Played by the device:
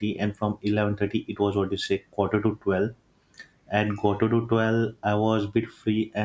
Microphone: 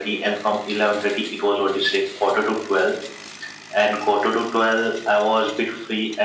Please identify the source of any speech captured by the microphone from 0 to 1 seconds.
echo only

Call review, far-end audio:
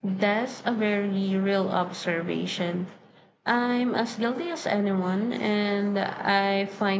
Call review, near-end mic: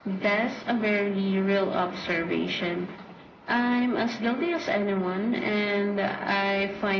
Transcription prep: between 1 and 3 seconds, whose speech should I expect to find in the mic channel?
echo only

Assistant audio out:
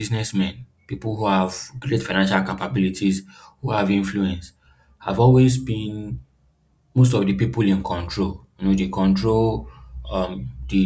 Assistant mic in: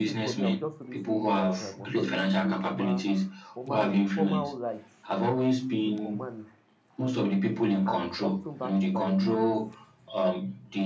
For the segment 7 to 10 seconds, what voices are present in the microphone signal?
both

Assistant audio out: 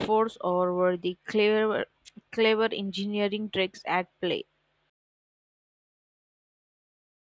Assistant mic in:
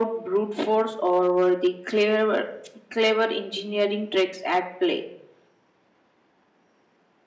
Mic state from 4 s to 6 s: echo only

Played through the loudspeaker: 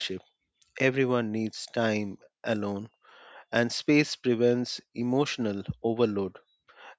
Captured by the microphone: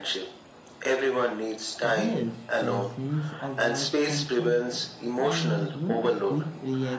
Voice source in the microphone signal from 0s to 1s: echo only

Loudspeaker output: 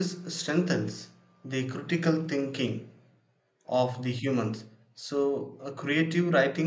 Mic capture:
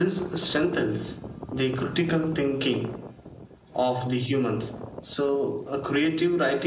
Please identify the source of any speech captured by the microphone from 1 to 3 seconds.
echo only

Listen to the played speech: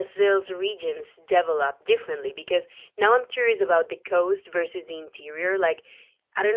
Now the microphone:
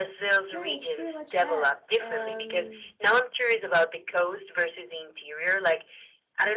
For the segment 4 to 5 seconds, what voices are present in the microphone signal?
echo only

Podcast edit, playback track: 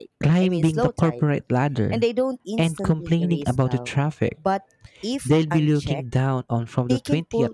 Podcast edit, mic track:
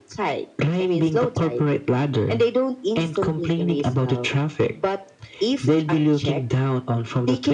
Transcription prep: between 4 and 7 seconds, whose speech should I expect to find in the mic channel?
echo only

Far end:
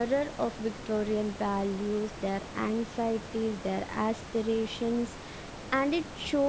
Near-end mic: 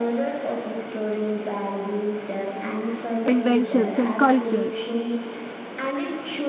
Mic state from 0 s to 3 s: echo only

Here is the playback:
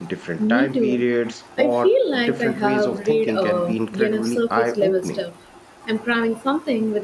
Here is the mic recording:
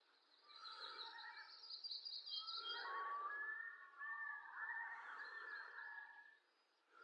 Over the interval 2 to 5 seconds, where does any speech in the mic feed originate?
neither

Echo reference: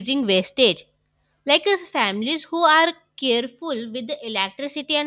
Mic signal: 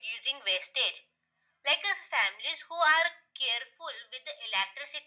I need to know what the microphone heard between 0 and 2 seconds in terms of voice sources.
echo only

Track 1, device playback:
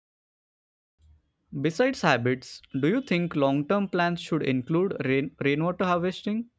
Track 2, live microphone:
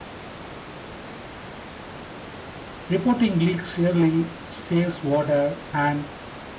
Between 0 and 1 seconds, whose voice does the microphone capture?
neither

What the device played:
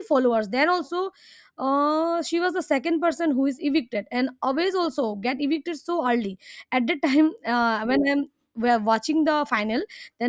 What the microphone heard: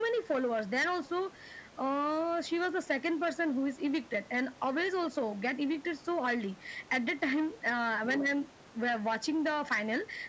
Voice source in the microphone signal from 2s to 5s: echo only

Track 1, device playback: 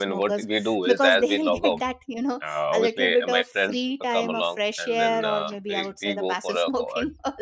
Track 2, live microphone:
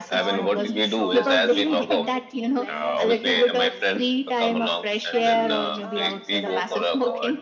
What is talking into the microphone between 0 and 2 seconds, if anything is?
both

